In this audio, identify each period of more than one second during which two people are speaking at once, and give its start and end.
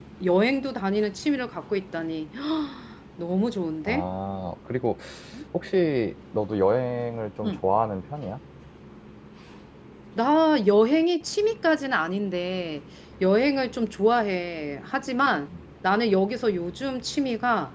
none

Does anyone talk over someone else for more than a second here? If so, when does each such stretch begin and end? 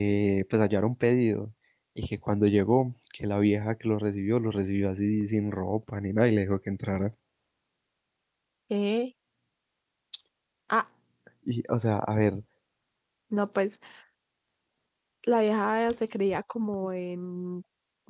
none

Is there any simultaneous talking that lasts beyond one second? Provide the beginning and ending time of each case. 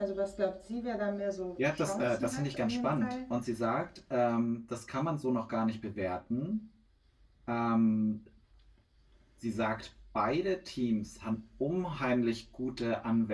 1.6-3.1

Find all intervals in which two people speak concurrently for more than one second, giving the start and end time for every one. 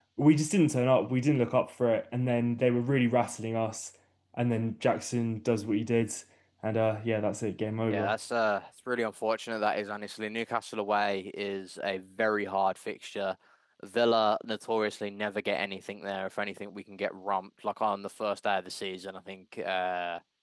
none

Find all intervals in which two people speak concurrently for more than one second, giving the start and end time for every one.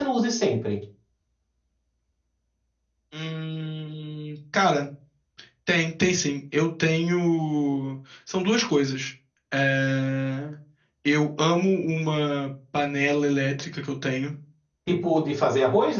none

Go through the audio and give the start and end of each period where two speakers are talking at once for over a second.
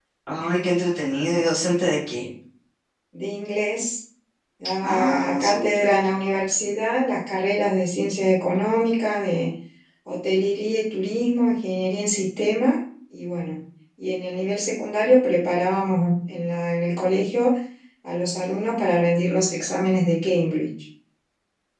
4.8-6.0

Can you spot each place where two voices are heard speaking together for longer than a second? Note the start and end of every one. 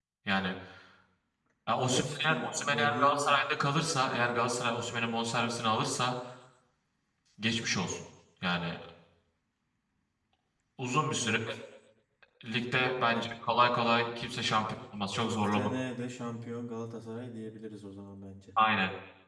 1.9-3.4

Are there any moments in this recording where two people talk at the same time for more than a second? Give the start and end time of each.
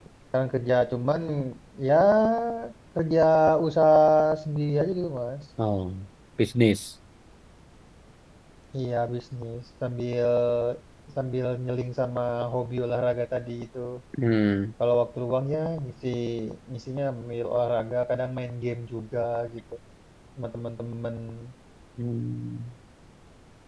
none

